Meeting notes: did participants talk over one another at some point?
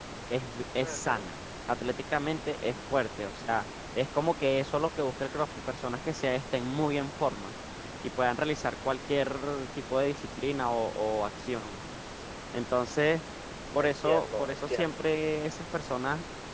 Yes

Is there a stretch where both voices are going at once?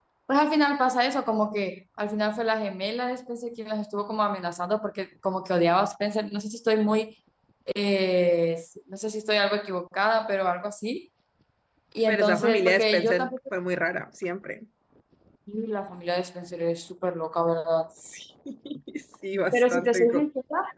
Yes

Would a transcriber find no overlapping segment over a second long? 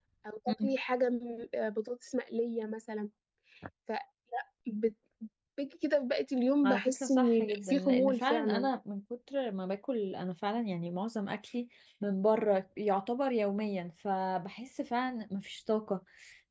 No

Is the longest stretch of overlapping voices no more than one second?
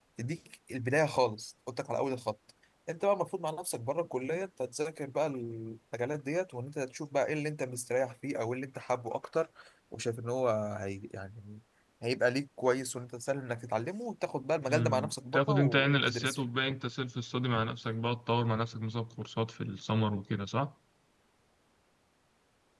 No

